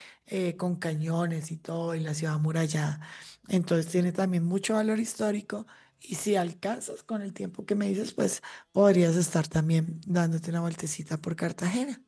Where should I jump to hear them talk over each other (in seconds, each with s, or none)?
none